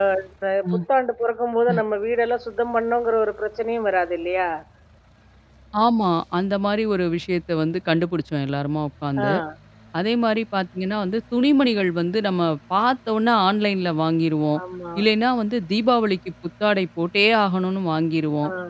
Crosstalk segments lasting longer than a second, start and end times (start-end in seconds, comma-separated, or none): none